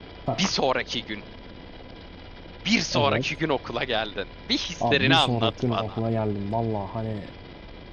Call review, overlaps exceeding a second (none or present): present